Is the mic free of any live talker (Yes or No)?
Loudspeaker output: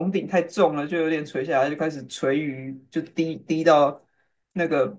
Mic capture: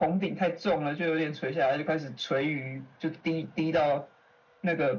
Yes